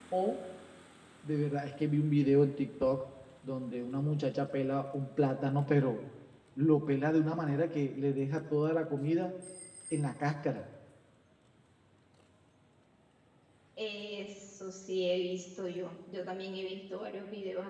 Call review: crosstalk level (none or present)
none